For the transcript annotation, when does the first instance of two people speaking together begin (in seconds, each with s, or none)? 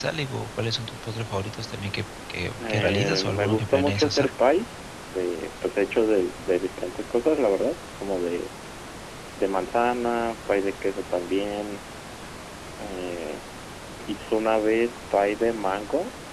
2.6 s